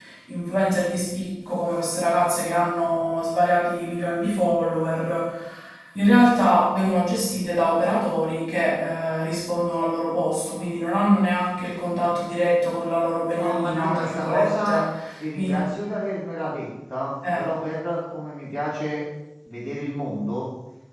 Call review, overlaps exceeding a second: present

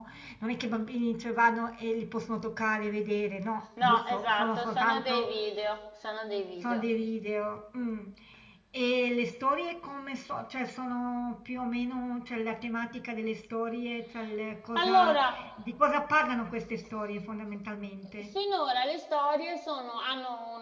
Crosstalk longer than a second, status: present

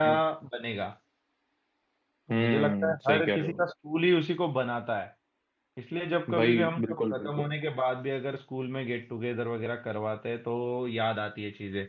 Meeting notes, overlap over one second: present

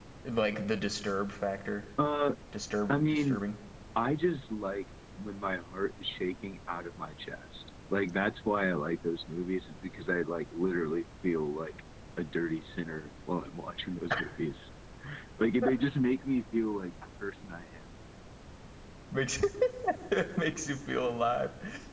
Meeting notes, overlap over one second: none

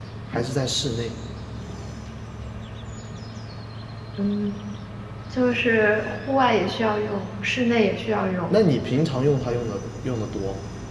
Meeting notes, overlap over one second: none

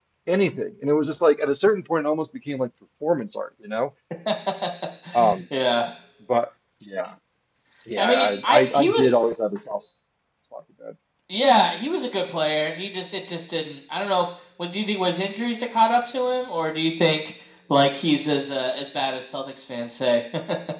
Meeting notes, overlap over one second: present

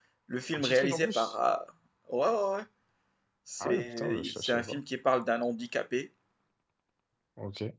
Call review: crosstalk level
present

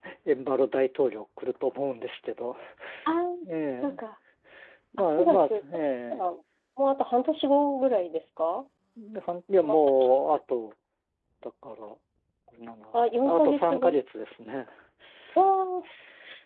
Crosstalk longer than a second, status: present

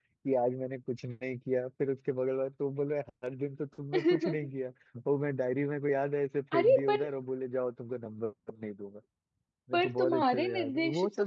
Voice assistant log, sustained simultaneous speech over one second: present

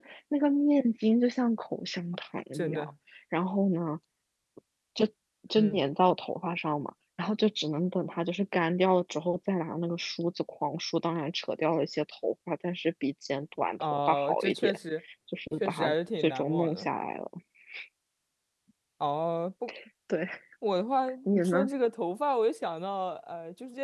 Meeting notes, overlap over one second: present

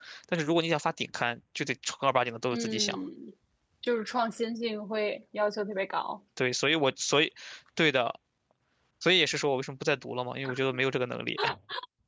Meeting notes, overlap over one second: none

